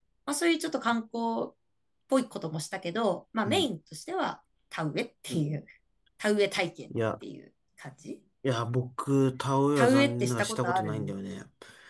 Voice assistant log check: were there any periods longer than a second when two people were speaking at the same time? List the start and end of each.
9.8-11.1

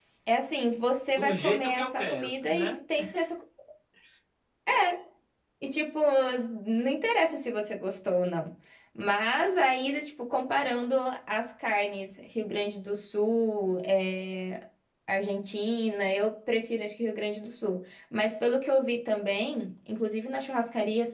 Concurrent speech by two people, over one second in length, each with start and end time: 1.1-2.8

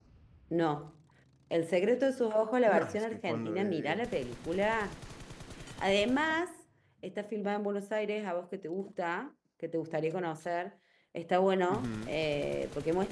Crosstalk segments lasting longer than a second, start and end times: 2.7-4.0

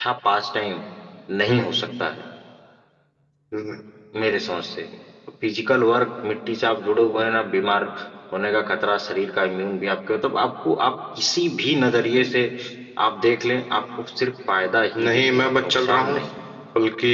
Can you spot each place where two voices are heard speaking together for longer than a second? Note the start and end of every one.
15.0-16.2

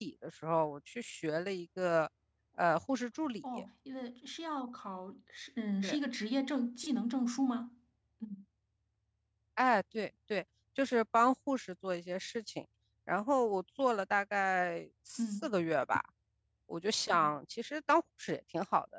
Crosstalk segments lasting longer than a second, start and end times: none

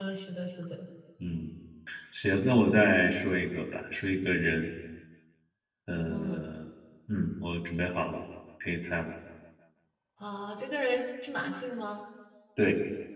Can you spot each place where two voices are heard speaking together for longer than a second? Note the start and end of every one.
none

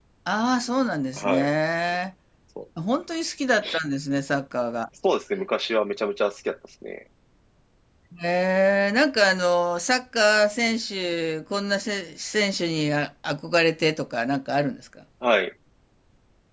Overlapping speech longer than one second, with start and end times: none

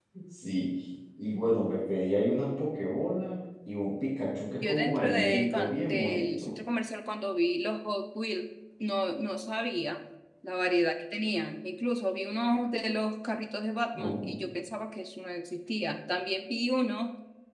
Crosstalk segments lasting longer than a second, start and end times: 4.6-6.5

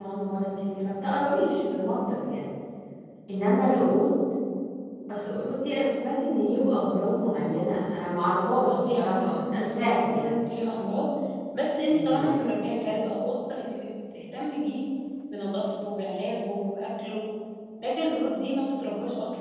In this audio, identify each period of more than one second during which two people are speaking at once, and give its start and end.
8.4-10.3

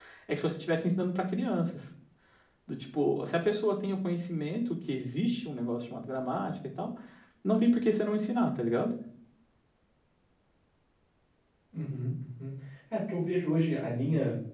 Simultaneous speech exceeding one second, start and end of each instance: none

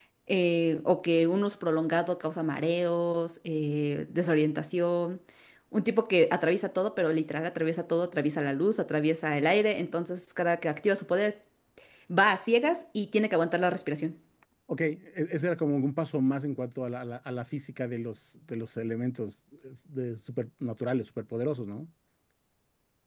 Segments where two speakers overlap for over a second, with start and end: none

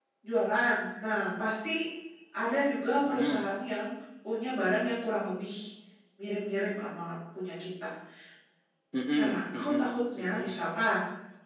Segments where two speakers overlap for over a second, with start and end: 9.2-10.6

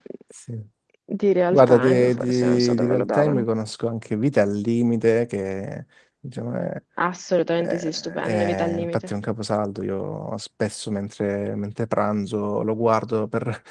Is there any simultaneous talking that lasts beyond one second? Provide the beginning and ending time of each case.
1.5-3.4, 7.6-9.1

